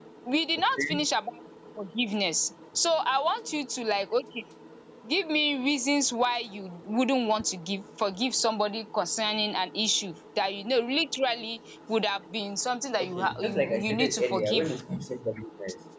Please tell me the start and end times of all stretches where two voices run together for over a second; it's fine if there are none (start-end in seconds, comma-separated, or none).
13.0-14.8